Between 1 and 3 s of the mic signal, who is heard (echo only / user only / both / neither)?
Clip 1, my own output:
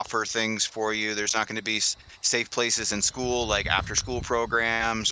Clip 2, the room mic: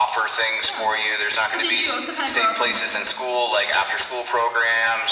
both